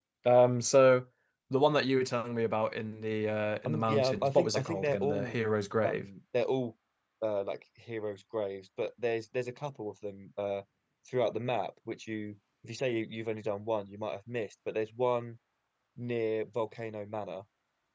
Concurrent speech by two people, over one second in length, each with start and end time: 3.6-5.4

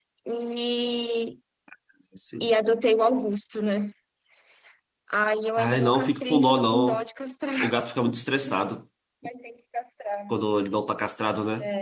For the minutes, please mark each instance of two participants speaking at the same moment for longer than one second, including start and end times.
5.6-7.0

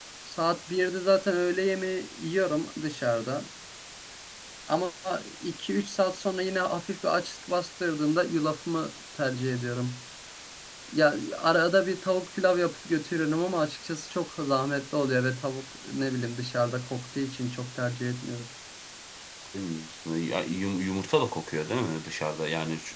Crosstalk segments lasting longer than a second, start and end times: none

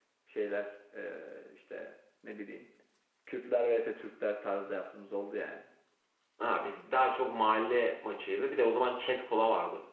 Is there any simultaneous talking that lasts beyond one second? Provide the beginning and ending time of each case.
none

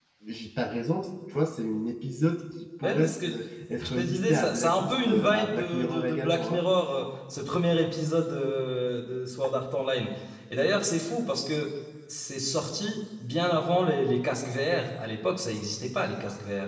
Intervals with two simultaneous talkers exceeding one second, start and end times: 3.8-6.6

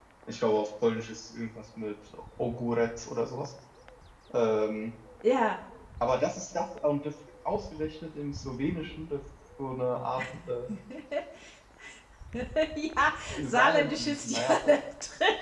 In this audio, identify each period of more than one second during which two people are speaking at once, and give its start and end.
13.4-14.6

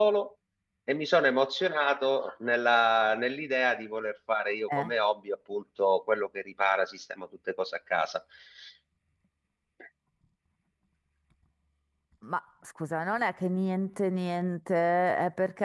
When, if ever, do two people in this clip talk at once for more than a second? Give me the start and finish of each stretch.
none

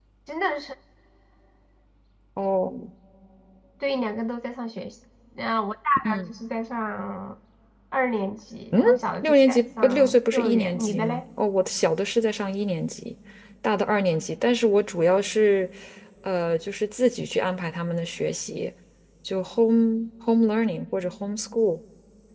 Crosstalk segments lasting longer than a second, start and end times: 9.2-11.2

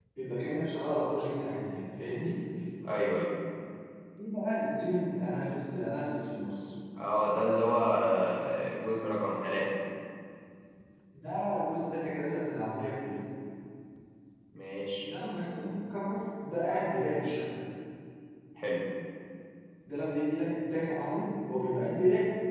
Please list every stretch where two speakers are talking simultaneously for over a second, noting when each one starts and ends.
none

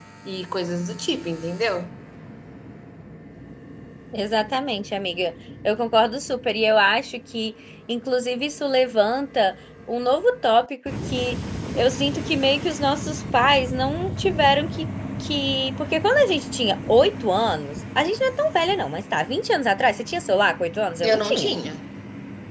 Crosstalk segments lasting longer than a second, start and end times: none

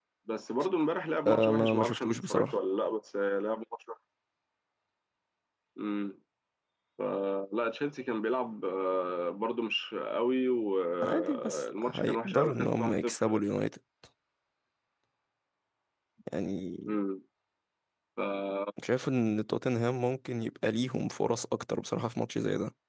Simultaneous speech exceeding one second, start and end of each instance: 1.3-2.5, 11.0-13.4

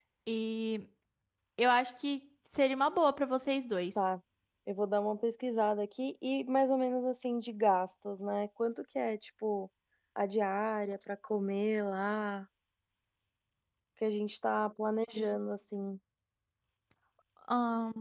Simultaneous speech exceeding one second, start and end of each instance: none

